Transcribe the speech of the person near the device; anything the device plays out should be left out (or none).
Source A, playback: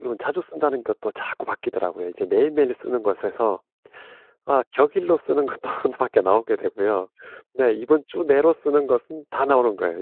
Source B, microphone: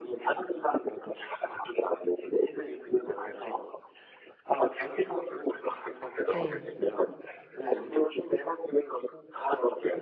네.